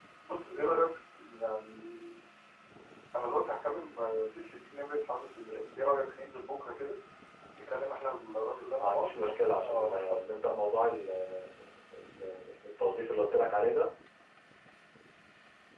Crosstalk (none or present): present